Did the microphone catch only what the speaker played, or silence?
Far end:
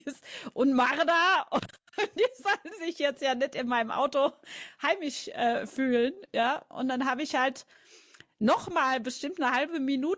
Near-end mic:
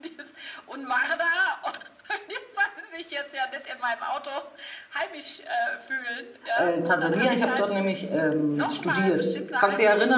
No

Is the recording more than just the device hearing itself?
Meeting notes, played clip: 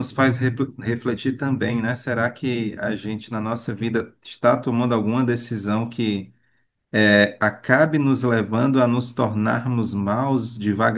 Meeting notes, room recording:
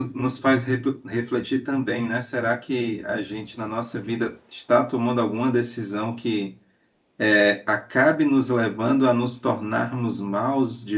No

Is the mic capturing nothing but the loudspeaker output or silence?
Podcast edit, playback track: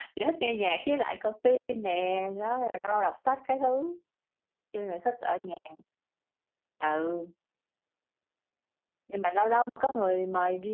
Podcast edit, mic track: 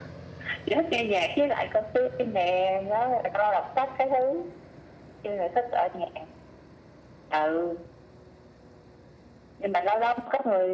Yes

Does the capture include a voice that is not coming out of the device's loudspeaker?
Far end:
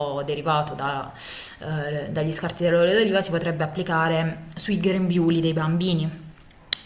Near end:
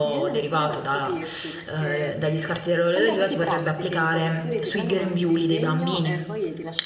Yes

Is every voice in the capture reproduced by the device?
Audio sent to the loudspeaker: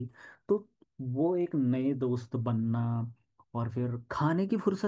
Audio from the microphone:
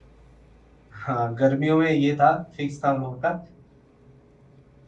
No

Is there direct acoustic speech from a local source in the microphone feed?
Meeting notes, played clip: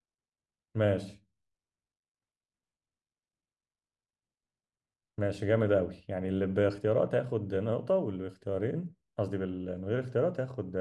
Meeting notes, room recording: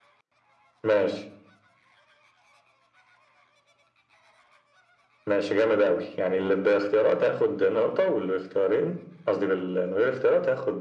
No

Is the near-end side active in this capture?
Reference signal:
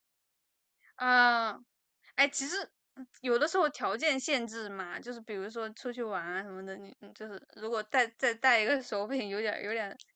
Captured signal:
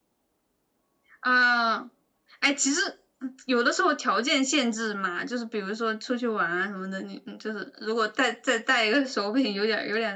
No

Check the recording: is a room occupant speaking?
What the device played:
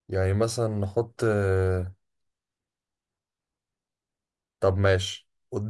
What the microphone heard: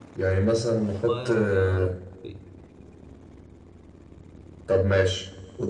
Yes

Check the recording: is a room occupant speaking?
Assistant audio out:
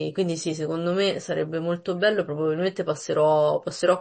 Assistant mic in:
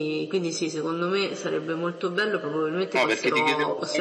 Yes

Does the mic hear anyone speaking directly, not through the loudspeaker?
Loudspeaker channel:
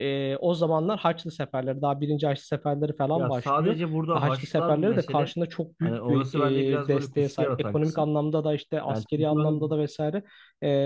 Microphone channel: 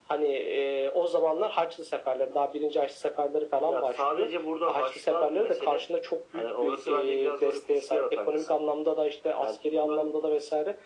No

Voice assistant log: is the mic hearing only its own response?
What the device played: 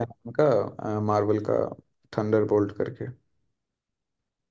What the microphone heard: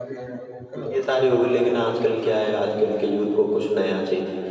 No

